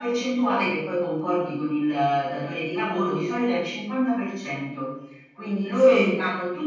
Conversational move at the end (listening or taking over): listening